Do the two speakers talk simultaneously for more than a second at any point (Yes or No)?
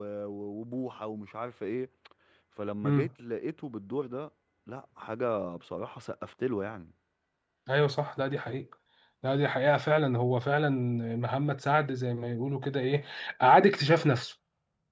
No